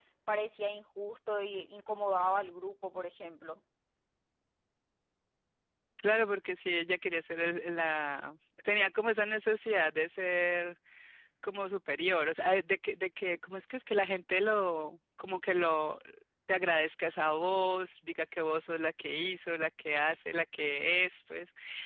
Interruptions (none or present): none